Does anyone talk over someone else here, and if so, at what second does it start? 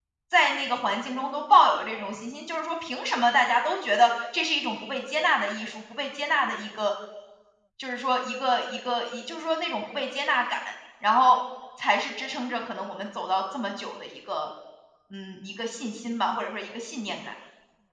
none

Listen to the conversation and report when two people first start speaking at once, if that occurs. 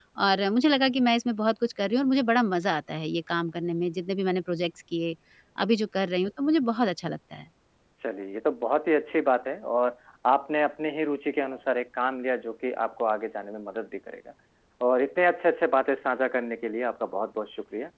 none

